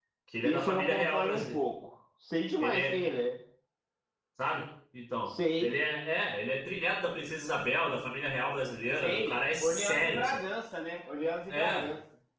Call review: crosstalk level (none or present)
present